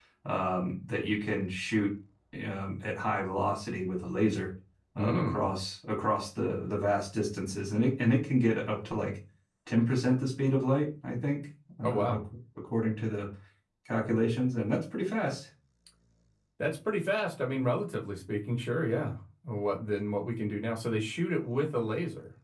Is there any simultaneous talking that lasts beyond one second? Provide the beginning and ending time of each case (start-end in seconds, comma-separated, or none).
none